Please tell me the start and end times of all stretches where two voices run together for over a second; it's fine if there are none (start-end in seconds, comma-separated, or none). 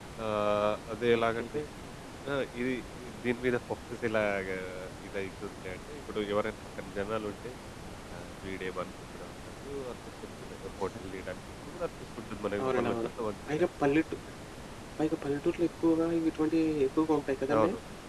none